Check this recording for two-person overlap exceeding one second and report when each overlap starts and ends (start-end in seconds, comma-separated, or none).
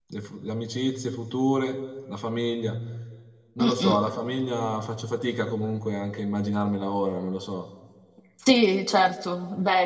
none